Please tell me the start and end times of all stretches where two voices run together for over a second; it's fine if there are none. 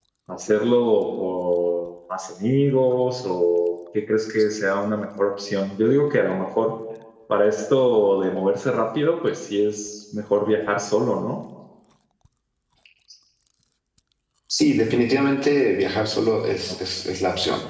none

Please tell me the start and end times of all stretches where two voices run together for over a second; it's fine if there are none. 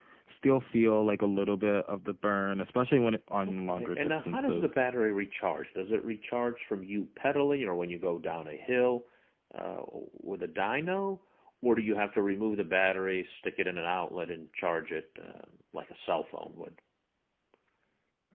3.5-4.9

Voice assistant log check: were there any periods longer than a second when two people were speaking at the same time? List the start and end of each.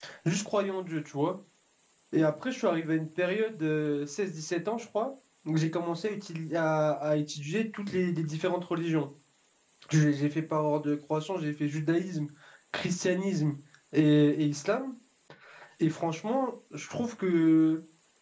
none

